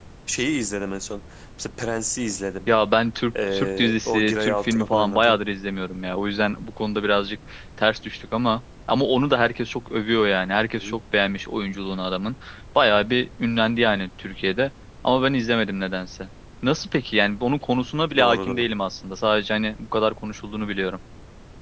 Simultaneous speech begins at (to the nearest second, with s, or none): 3 s